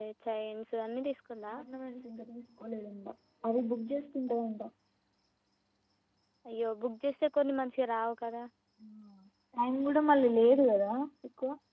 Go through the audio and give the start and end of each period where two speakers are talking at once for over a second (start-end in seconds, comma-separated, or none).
none